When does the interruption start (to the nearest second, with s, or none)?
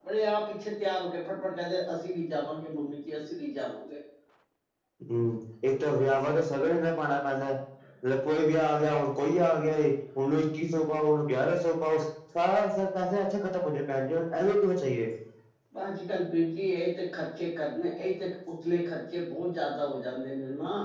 none